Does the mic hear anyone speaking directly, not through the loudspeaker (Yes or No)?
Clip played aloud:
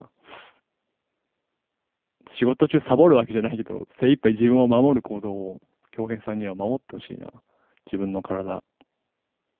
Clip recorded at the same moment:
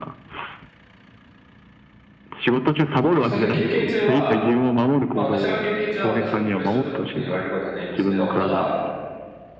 Yes